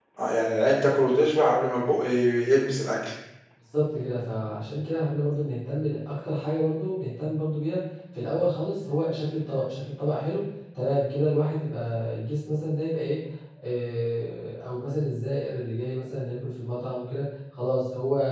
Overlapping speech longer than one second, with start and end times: none

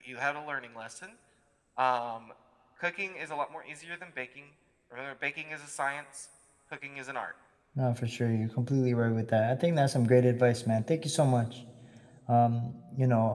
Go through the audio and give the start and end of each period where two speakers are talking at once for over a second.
none

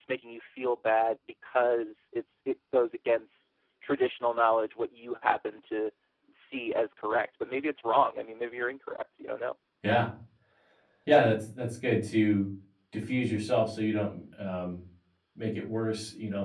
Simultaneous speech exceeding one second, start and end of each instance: none

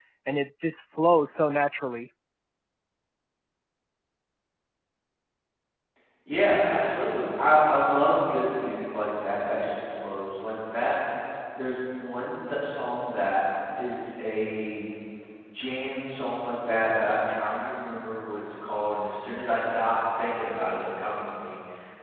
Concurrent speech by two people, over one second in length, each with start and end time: none

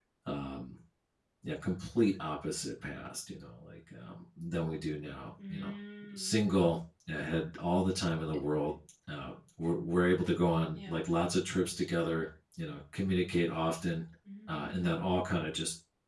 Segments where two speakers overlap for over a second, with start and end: none

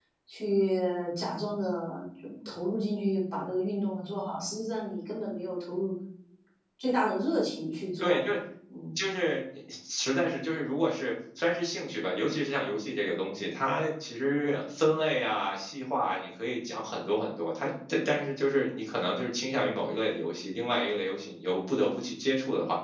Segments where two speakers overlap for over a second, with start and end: none

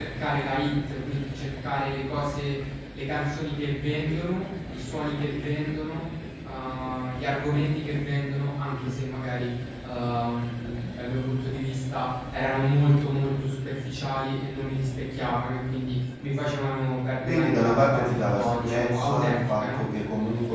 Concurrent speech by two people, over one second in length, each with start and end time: 17.2-19.8

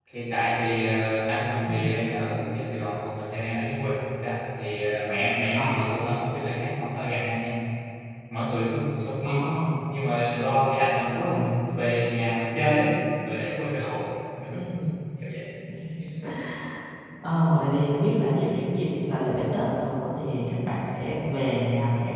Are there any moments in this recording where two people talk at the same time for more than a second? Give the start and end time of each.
none

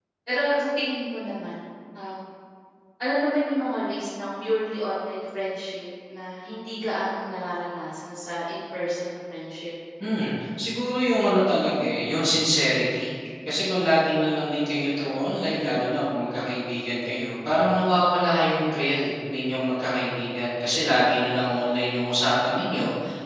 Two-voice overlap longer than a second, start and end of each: none

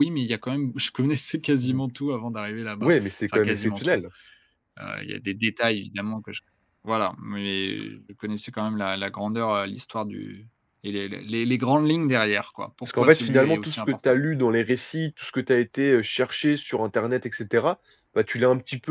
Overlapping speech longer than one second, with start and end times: 2.8-4.0, 12.8-14.2

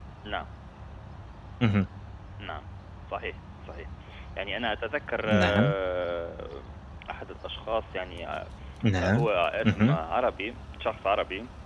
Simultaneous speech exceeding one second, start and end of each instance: none

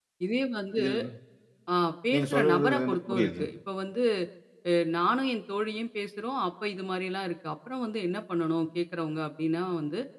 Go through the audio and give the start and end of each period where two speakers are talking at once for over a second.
2.1-3.4

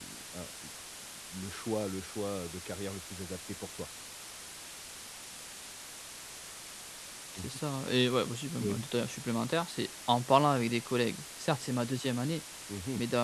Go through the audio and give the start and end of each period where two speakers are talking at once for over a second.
none

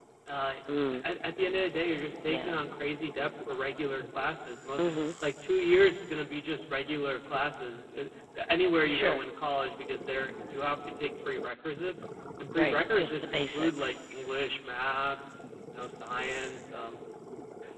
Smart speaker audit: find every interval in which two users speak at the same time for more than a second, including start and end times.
12.6-13.9

